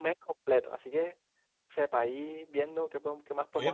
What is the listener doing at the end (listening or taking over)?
taking over